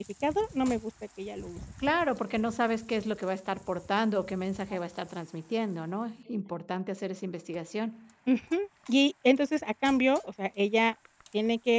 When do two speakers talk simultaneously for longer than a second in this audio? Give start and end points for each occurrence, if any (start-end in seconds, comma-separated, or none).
none